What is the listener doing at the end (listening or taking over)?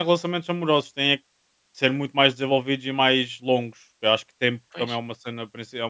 listening